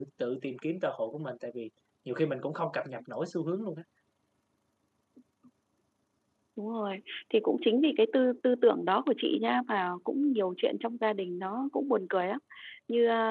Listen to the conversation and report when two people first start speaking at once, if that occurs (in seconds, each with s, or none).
none